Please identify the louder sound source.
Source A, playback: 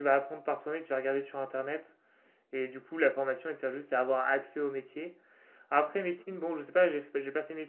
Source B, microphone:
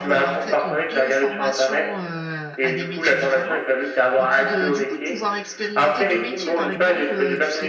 echo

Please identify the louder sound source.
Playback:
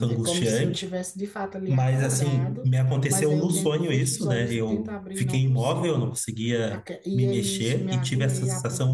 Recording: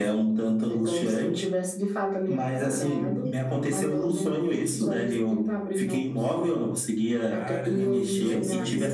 echo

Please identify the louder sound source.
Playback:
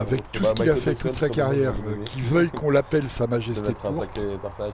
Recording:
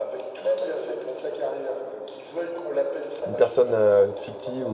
user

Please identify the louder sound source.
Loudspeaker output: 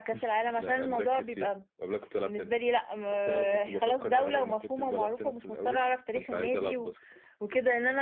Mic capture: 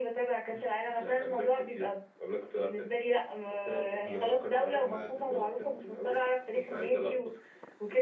echo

